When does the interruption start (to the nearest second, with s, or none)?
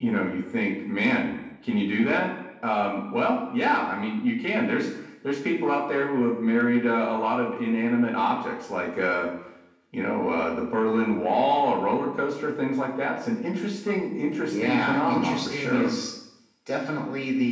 14 s